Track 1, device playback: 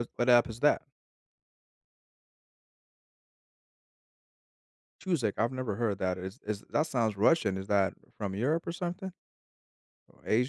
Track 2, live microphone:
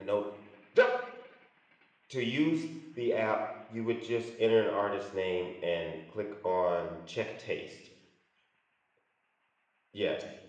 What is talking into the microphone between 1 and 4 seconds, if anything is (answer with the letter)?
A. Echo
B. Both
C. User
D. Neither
C